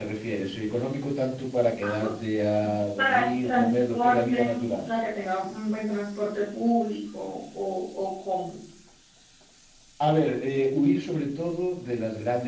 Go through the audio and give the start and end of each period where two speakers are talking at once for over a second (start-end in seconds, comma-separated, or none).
3.0-4.9